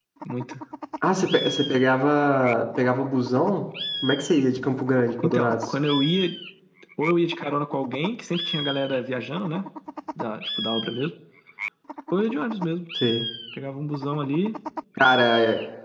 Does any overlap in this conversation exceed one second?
No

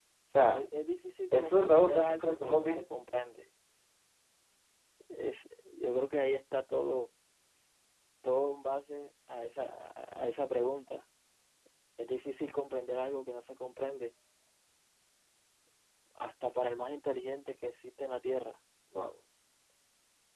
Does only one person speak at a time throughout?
No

